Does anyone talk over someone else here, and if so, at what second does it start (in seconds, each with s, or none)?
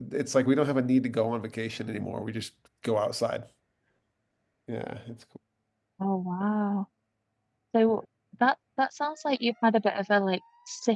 none